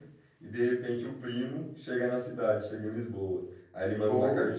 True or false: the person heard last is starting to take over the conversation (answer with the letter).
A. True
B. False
B